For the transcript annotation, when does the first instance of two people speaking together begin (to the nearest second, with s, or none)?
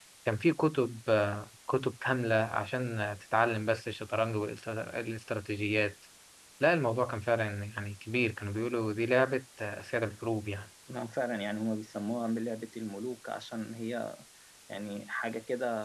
none